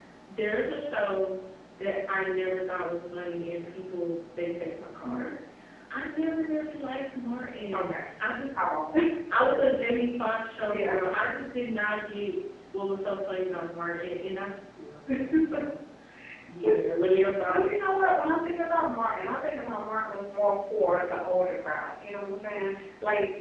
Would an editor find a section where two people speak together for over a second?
No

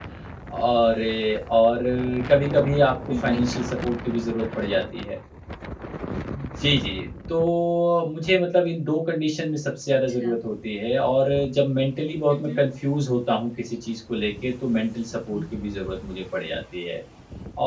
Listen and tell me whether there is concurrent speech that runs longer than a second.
No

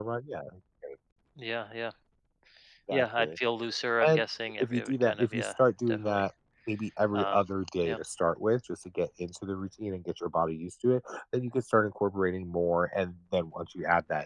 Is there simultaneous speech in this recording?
Yes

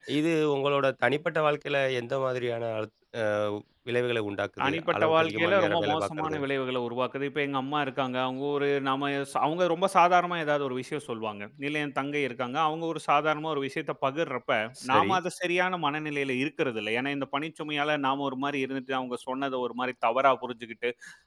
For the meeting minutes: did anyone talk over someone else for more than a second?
Yes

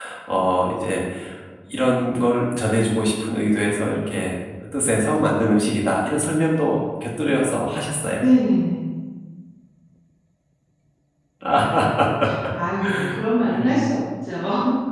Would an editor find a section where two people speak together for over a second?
No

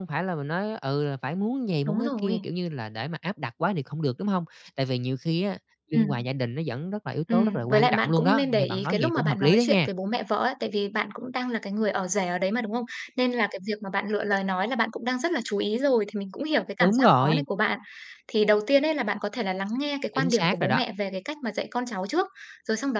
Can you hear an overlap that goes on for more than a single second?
Yes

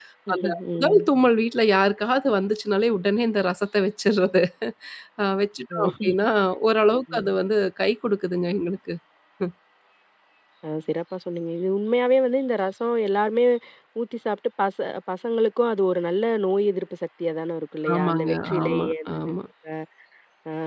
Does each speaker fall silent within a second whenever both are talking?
No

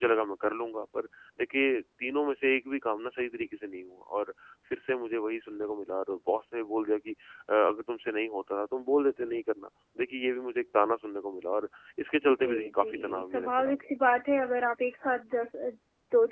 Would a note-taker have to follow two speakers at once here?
Yes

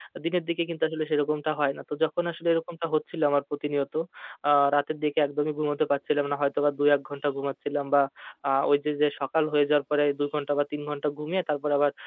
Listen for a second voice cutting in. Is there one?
No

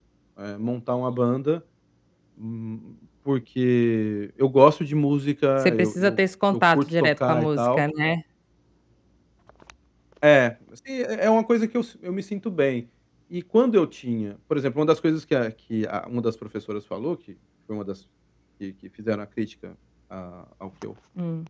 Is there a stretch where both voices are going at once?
Yes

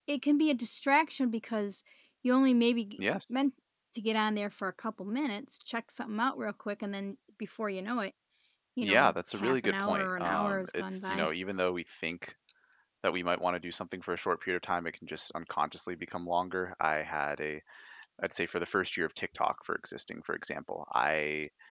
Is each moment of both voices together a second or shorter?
No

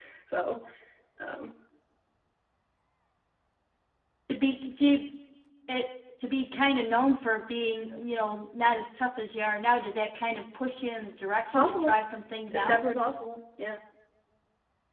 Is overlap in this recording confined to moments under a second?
Yes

